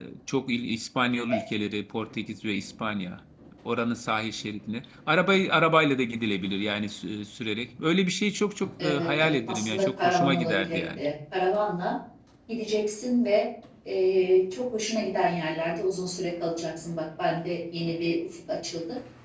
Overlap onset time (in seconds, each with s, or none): 8.8 s